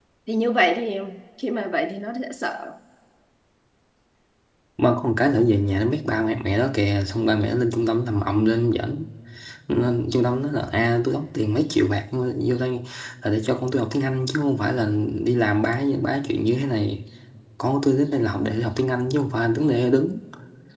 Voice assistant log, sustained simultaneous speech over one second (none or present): none